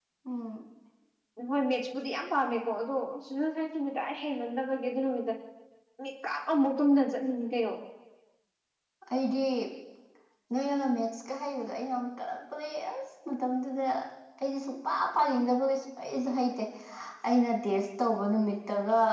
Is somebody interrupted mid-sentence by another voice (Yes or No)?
No